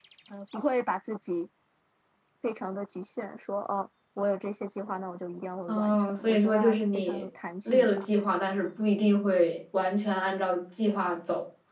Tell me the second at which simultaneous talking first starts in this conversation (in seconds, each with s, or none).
5.7 s